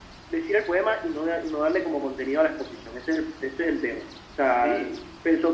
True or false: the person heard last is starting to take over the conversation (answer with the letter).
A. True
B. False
B